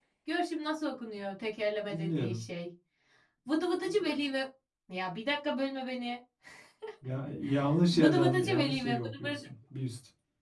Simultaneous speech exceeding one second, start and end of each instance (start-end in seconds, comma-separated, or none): 7.9-9.4